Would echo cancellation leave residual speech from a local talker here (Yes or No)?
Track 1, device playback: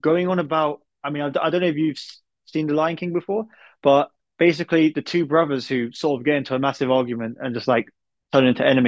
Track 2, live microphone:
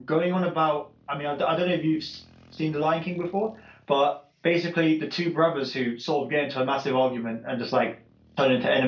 No